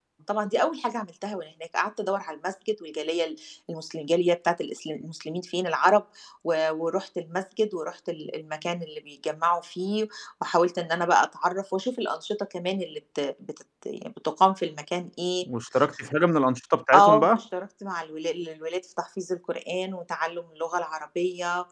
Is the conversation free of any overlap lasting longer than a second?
Yes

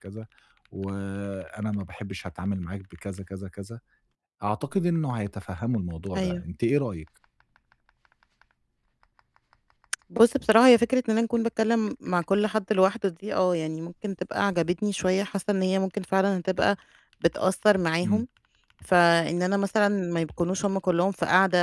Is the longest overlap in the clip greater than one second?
No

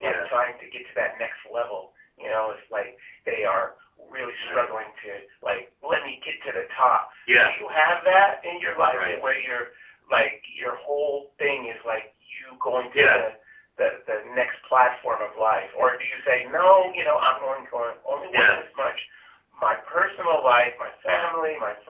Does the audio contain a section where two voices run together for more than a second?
No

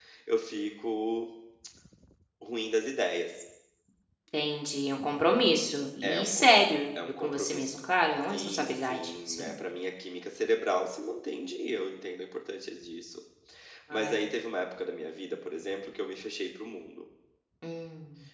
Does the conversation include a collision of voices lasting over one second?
Yes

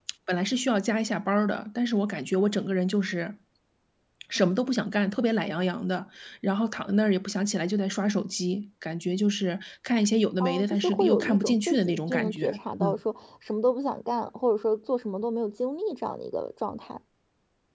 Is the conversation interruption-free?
No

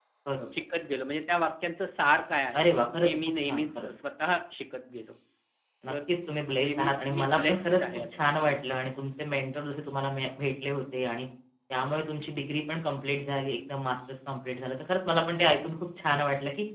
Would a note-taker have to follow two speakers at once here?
Yes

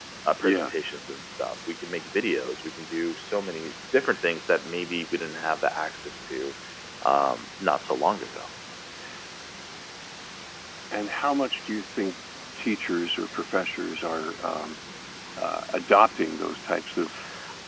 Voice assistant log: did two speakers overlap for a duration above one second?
No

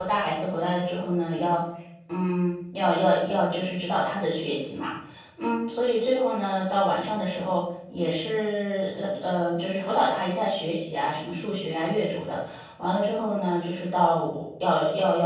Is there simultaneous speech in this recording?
No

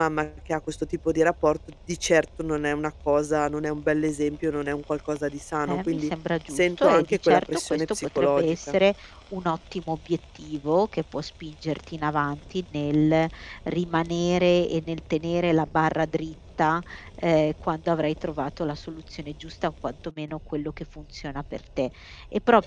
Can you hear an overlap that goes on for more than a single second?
Yes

